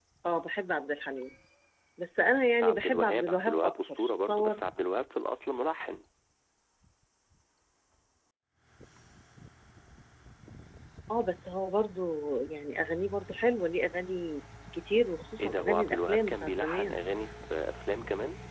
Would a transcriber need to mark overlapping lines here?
Yes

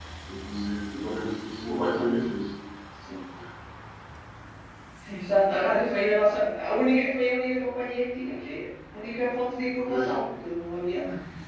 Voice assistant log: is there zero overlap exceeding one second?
Yes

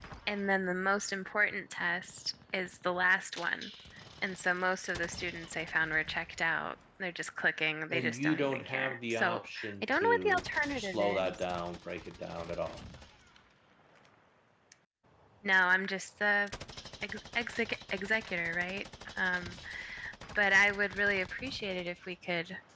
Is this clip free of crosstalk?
No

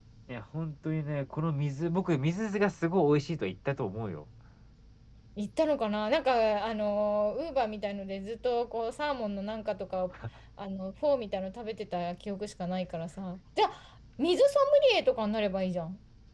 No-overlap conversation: Yes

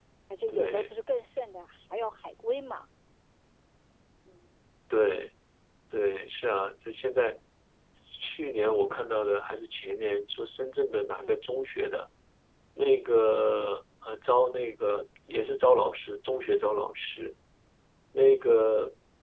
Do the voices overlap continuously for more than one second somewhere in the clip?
No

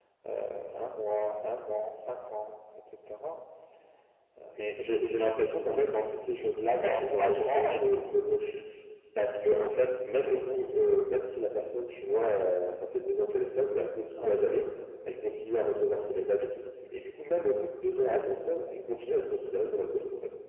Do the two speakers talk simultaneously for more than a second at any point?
Yes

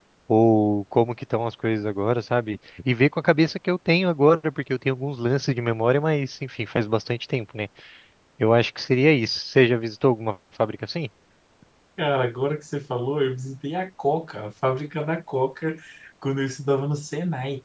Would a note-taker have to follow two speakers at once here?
No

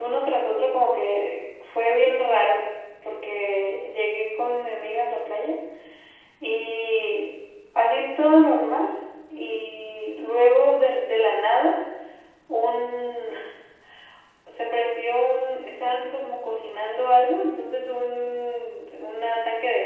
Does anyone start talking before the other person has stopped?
No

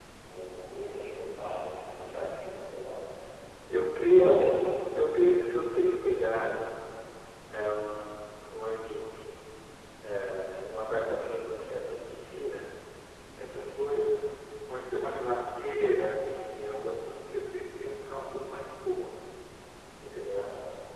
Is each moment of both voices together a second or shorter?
Yes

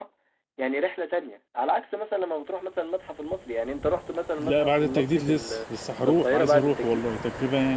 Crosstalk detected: Yes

